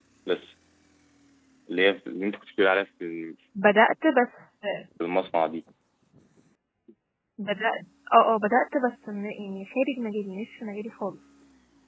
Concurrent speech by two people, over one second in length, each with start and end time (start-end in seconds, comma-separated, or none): none